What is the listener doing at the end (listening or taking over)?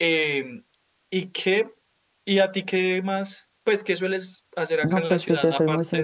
taking over